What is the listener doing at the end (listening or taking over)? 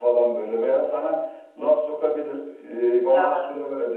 listening